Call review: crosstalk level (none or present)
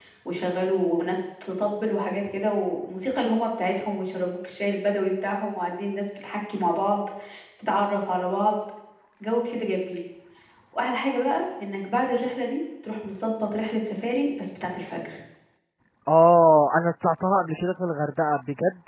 none